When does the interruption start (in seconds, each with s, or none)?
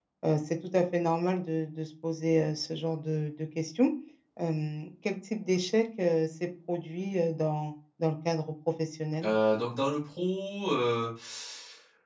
none